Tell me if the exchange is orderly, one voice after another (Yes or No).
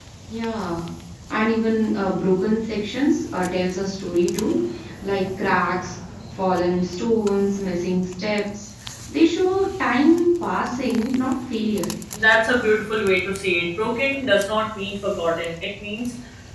Yes